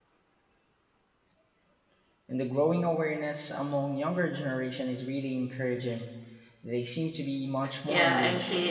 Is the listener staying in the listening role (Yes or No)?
No